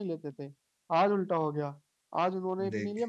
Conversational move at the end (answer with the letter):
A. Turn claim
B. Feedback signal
B